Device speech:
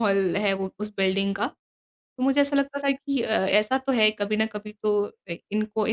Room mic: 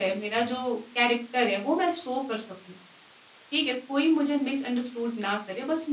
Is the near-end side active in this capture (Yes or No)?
Yes